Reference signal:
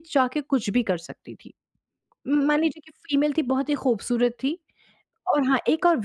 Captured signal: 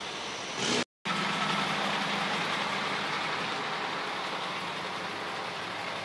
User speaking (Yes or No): No